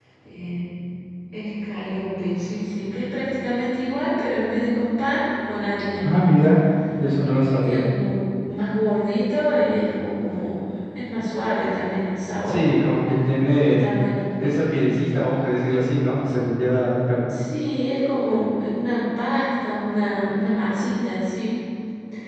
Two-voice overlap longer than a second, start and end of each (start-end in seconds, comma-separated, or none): none